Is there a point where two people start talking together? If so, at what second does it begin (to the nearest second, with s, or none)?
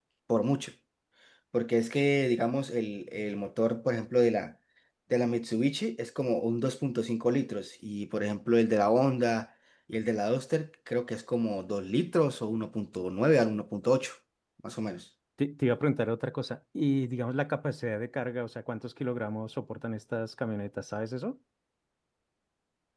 none